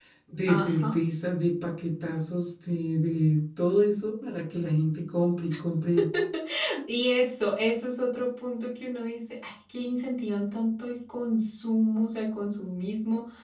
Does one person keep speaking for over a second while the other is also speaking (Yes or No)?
No